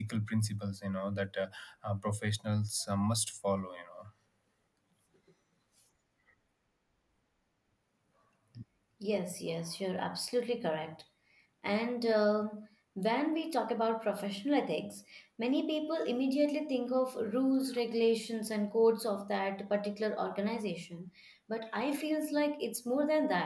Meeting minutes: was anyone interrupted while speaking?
No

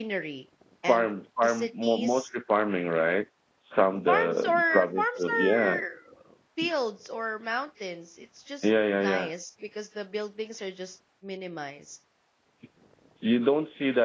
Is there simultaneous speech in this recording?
Yes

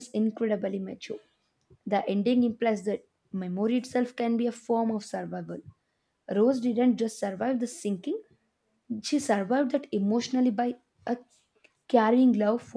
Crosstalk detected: No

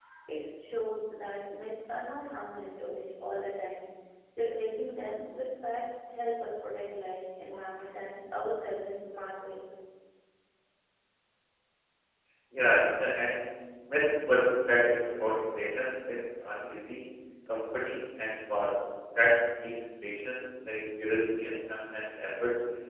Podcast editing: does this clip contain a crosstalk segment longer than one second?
No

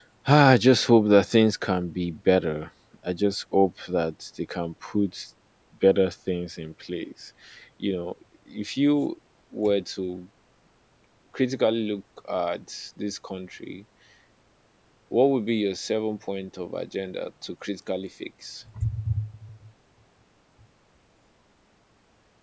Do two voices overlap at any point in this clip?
No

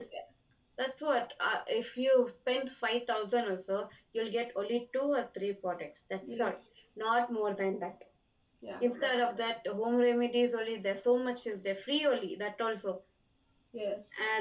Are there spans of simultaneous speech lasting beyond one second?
No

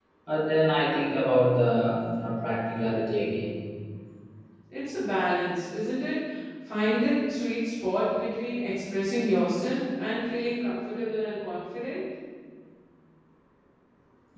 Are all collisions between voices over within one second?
Yes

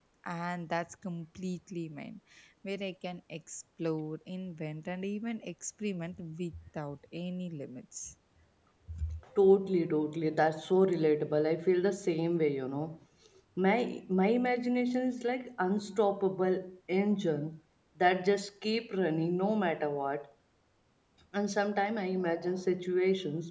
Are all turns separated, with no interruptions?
Yes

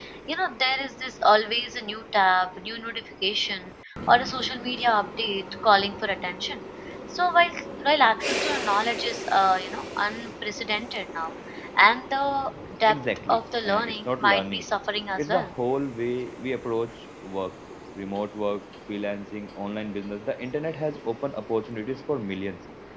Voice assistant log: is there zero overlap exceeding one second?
No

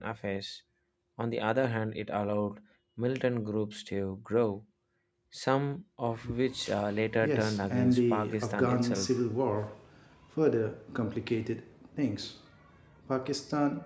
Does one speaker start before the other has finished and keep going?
Yes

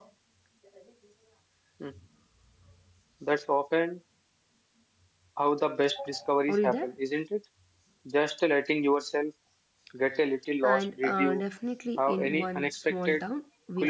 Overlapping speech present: Yes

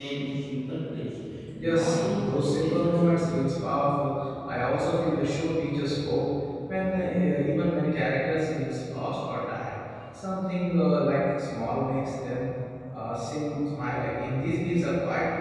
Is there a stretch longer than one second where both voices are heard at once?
Yes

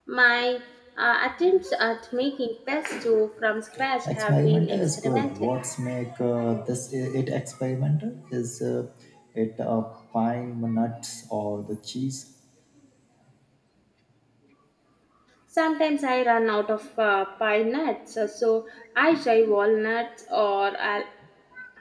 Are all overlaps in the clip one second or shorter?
No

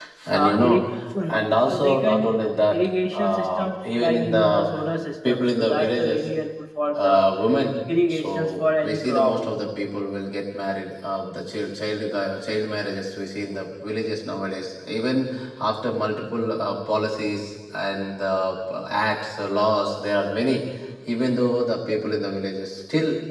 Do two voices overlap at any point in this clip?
Yes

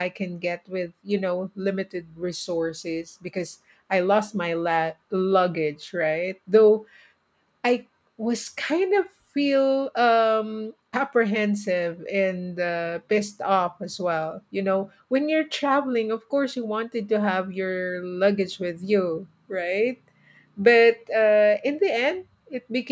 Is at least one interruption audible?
No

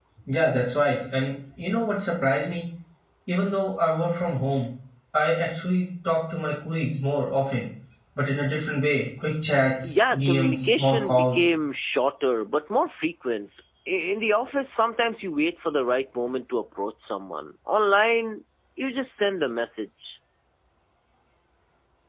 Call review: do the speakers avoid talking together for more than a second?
No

